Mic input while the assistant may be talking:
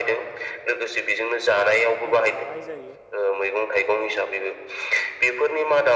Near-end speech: present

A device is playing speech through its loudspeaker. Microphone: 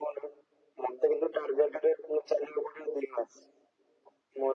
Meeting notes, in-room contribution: none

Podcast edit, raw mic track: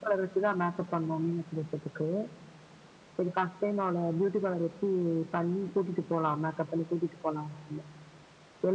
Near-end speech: none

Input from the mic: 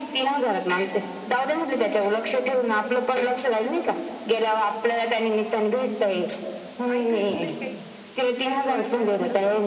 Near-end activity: present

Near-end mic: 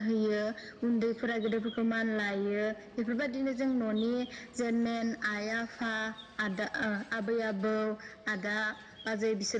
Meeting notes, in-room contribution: none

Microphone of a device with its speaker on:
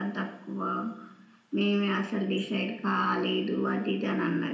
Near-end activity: none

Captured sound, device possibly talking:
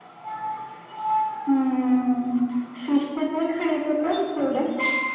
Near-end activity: none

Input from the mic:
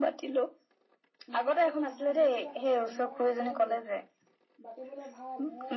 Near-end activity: present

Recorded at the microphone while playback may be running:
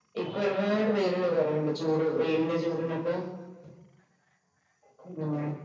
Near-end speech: none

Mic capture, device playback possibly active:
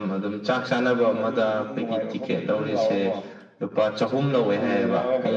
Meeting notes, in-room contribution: none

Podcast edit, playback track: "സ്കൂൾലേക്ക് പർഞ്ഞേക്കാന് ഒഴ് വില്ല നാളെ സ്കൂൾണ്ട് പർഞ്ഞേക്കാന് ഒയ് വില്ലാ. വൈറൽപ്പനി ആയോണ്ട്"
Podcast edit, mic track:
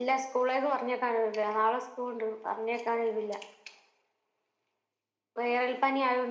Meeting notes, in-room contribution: none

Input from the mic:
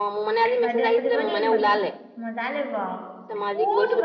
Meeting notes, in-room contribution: present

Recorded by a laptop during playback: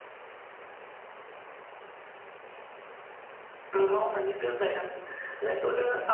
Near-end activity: present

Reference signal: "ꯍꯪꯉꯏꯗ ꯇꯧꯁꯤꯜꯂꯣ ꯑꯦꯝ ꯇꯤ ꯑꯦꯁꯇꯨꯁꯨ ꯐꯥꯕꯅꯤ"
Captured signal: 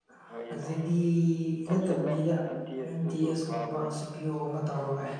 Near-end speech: present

